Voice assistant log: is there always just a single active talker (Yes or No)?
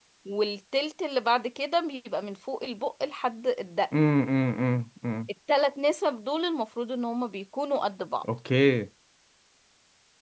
Yes